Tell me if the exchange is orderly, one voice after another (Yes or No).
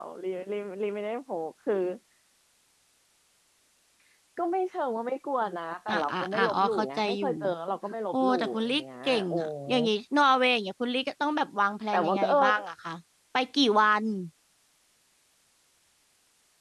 No